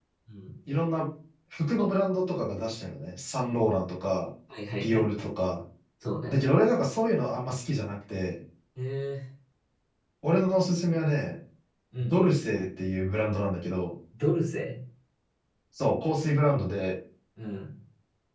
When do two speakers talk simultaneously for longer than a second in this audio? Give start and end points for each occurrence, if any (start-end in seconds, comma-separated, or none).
none